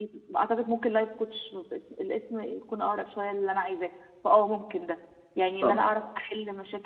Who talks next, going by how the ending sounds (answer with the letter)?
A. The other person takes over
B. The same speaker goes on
B